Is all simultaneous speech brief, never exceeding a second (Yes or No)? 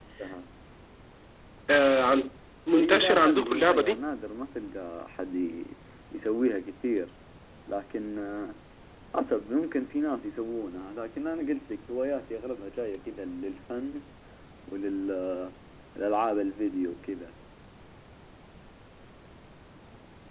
No